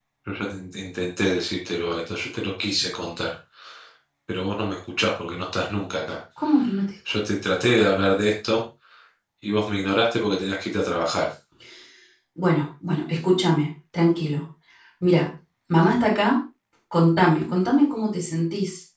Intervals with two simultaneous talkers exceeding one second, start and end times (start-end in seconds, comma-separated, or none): none